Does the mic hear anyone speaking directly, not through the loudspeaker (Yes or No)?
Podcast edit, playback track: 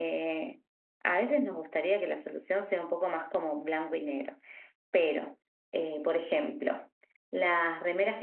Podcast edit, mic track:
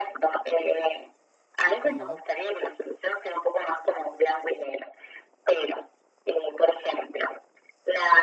Yes